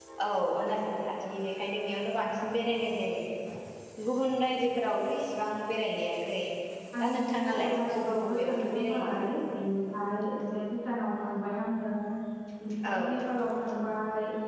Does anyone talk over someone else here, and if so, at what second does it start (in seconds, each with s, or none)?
7.0 s